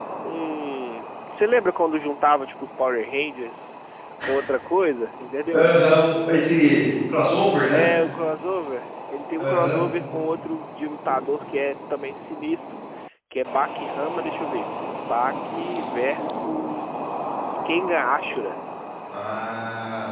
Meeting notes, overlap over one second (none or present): none